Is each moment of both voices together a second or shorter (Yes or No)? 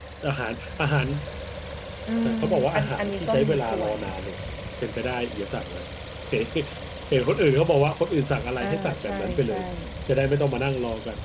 No